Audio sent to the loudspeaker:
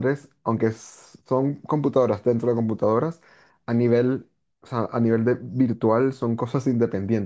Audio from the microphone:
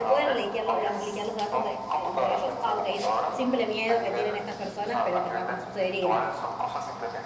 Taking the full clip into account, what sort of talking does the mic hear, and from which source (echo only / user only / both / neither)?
both